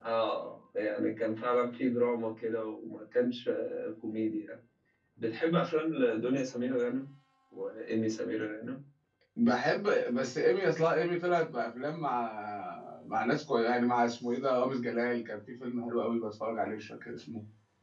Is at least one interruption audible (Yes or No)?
No